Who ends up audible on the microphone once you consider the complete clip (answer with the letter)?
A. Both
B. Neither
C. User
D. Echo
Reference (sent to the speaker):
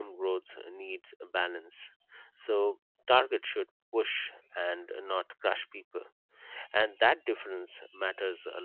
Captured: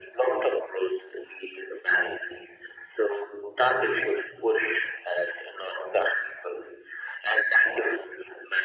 D